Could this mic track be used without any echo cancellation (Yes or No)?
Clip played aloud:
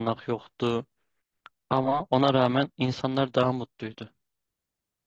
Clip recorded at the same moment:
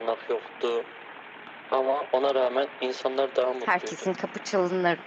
No